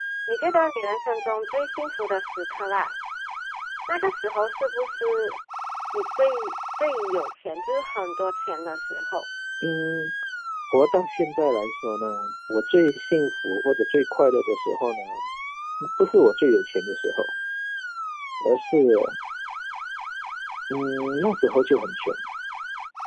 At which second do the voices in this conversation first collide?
none

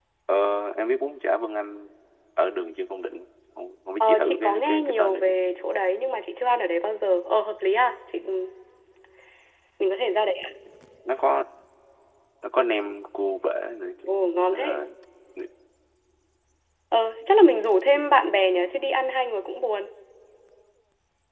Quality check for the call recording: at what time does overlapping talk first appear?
4.0 s

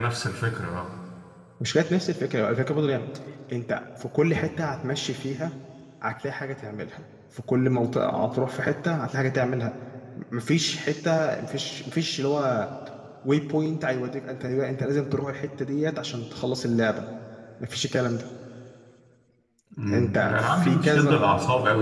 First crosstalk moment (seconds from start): 19.9 s

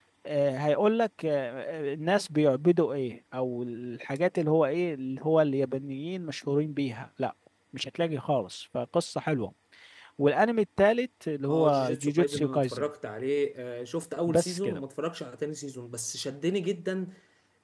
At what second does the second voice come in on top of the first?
11.5 s

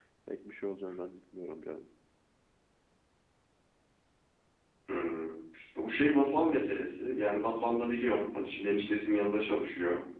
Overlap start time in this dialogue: none

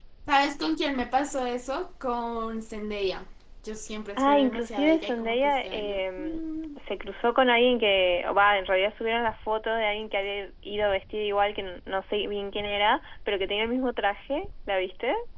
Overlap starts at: 4.2 s

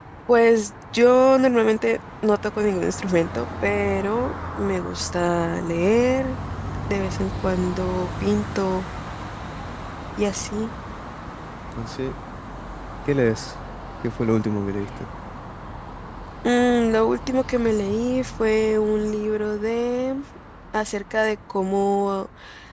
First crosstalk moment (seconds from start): none

